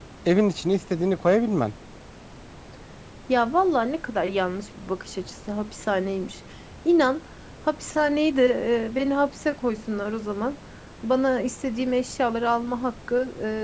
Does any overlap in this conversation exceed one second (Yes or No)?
No